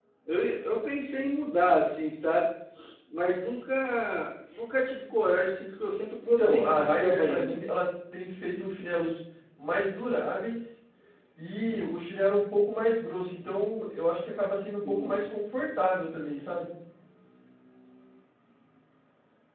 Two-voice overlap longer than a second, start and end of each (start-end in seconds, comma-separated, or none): 6.2-7.8